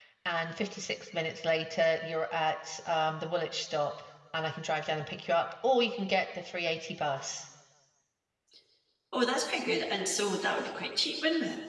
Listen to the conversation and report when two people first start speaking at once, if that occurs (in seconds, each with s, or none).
none